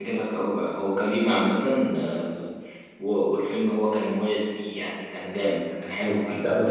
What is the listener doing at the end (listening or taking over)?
taking over